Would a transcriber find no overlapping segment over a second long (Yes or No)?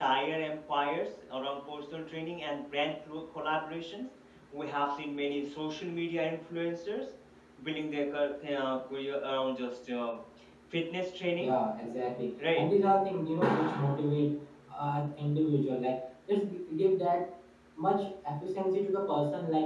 Yes